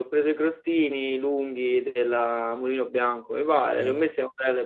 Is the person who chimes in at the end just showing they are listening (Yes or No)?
Yes